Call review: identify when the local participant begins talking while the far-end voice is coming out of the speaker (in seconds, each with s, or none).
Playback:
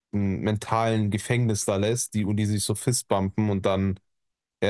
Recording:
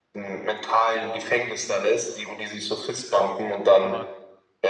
3.8 s